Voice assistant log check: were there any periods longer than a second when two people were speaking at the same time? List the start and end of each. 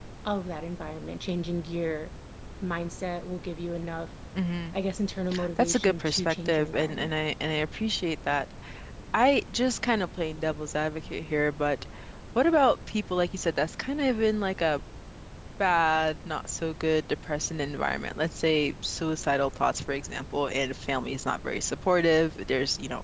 5.6-7.1

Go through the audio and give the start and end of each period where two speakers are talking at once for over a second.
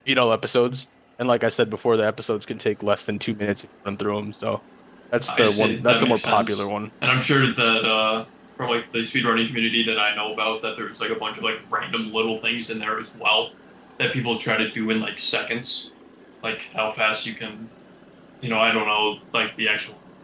5.3-6.7

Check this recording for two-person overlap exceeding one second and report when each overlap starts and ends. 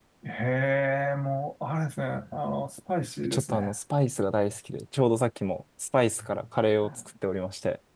none

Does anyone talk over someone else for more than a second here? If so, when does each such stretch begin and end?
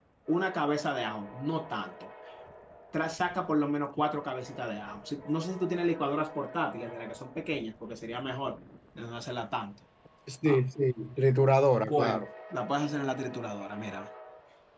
none

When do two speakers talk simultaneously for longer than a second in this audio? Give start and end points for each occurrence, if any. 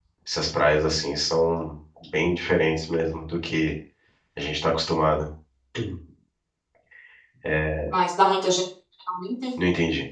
none

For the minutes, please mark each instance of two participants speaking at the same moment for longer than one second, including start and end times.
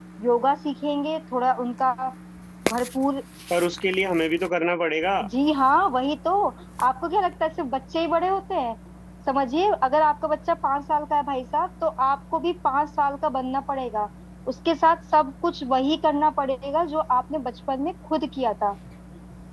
none

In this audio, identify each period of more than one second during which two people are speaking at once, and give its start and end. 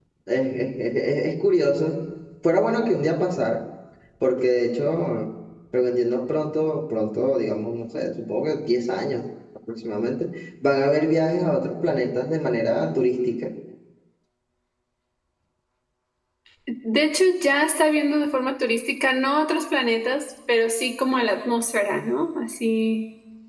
none

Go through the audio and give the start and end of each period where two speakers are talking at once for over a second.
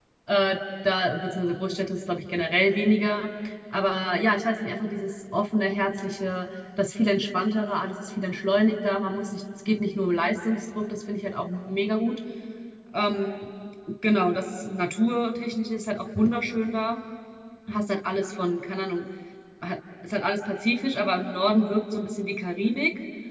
none

